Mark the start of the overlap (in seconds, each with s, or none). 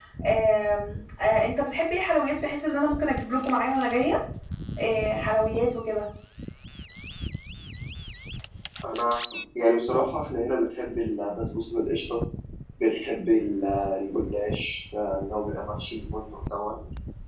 none